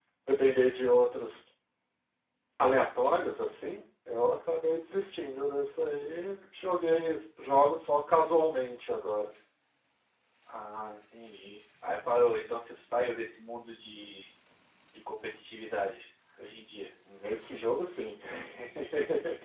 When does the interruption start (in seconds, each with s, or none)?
none